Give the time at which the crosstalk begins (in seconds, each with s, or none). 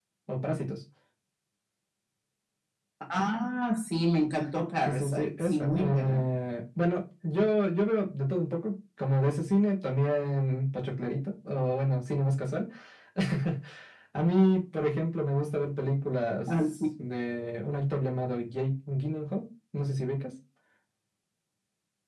4.8 s